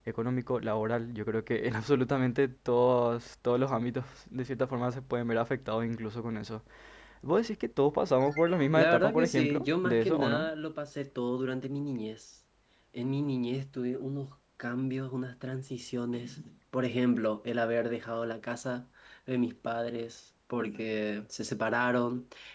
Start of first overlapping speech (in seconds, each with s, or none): 8.7 s